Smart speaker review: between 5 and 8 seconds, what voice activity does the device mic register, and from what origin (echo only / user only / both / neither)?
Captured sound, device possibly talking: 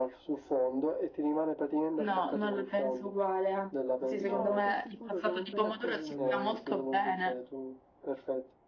both